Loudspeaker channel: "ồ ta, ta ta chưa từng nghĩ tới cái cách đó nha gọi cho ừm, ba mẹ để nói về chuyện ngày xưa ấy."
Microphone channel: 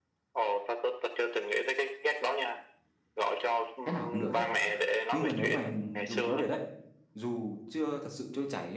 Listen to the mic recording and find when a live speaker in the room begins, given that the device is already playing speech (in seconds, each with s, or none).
3.8 s